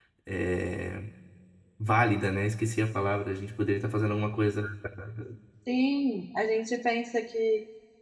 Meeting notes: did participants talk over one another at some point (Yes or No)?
No